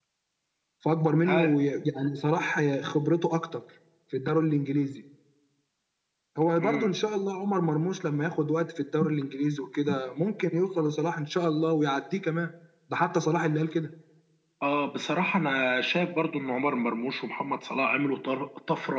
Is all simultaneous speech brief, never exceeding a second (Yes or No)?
Yes